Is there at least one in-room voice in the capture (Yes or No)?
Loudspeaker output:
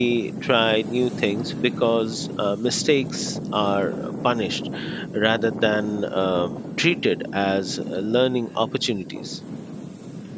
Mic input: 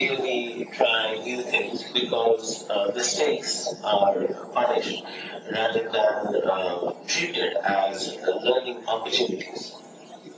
No